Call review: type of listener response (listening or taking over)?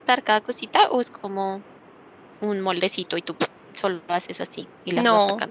taking over